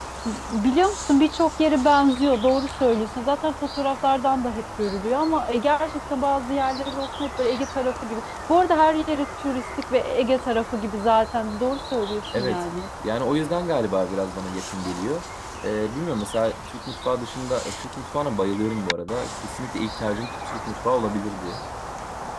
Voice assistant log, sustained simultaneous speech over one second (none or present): none